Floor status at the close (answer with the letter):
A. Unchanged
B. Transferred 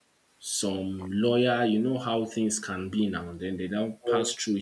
A